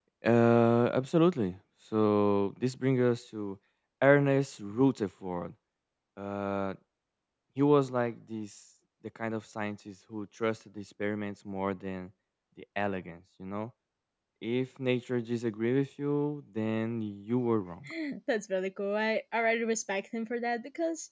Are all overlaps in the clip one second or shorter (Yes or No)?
Yes